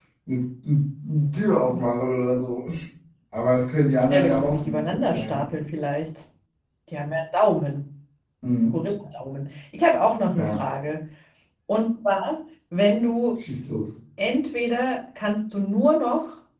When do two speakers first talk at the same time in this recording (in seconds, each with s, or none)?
4.1 s